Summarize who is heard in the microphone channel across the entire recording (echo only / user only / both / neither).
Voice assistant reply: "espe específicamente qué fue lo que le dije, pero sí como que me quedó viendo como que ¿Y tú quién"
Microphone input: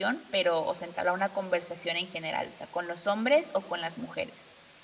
user only